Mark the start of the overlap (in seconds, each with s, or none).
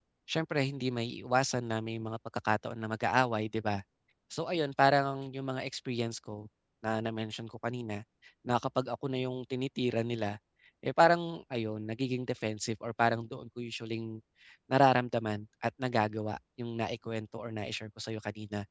none